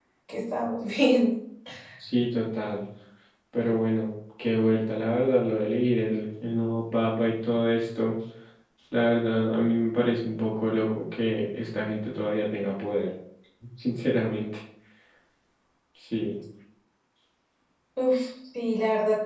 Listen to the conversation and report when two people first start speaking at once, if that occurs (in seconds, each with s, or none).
none